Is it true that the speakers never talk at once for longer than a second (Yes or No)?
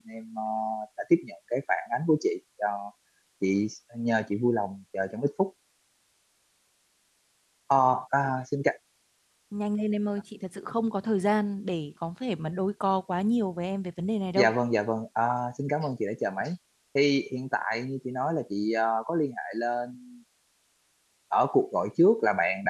Yes